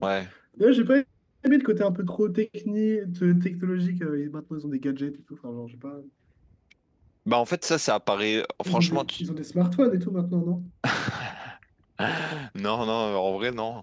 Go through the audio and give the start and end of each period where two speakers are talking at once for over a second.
none

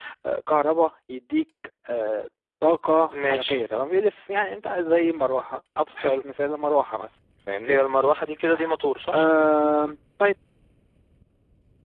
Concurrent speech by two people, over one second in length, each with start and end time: none

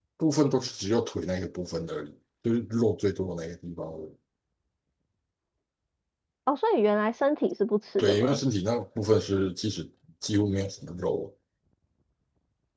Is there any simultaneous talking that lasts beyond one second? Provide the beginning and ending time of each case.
none

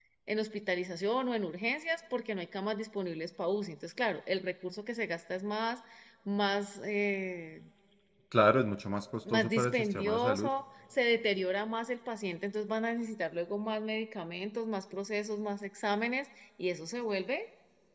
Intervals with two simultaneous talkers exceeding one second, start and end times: 9.3-10.5

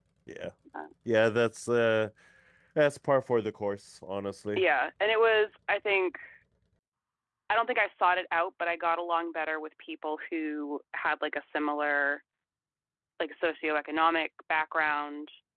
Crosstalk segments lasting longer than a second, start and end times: none

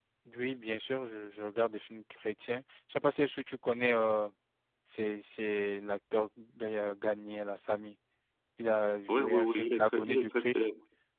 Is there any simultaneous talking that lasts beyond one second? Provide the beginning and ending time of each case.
9.1-10.7

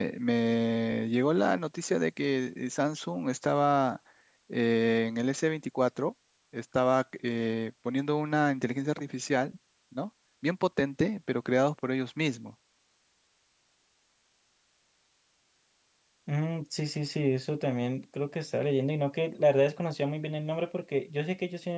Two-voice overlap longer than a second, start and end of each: none

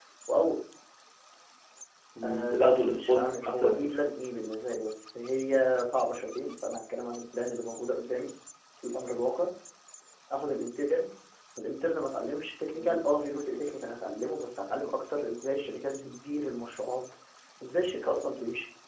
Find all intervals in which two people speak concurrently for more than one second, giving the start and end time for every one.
2.2-3.9

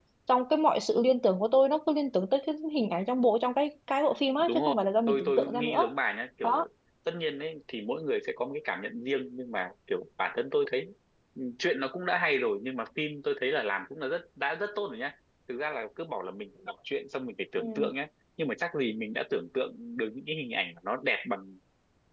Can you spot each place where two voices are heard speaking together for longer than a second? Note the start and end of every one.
4.4-5.9

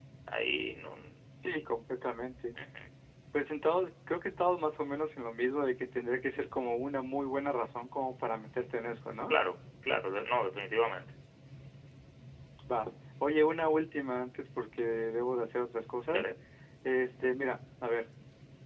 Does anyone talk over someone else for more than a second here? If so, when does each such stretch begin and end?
none

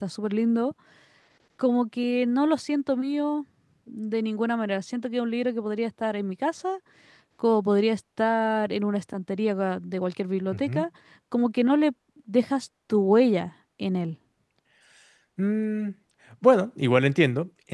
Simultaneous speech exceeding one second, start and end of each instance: none

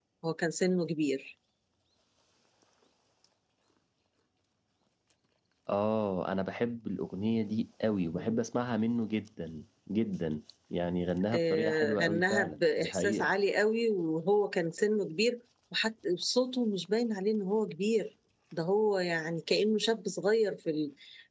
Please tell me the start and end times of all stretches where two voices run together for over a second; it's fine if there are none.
11.3-13.3

